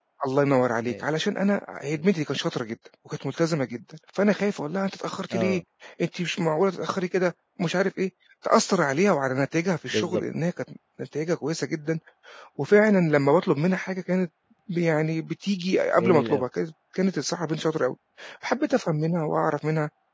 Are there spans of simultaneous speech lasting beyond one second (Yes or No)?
No